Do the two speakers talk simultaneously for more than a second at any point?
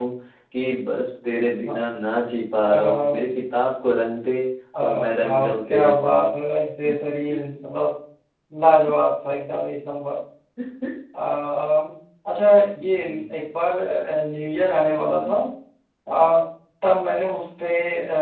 Yes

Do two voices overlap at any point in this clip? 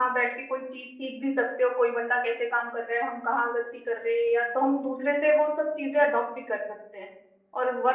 No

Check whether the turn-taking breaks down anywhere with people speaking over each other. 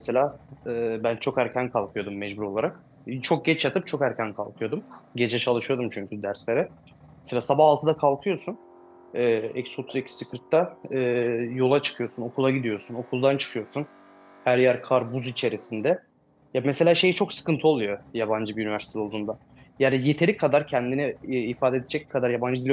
No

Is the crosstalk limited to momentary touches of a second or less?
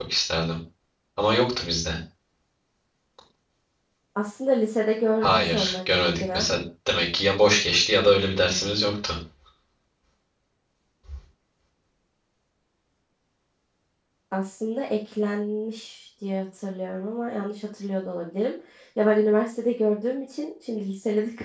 No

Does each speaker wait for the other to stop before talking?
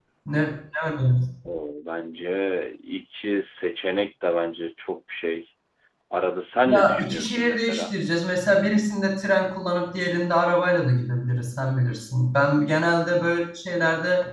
No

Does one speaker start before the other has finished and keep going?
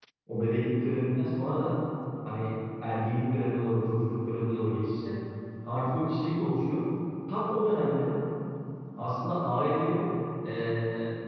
No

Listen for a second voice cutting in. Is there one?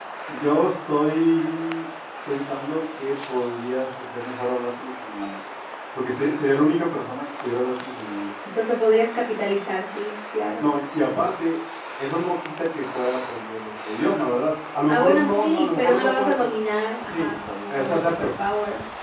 Yes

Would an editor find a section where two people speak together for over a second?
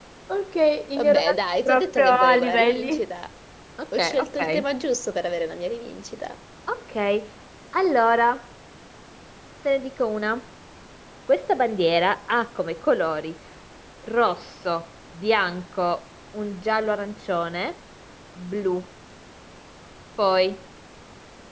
Yes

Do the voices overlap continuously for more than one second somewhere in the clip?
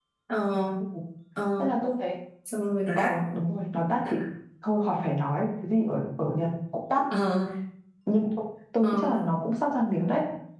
No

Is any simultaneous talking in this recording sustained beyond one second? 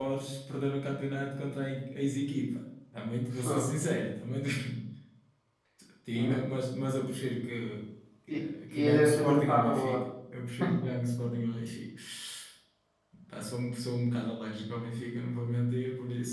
Yes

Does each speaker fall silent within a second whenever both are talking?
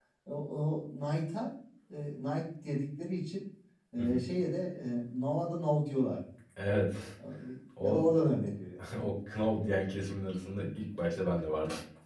Yes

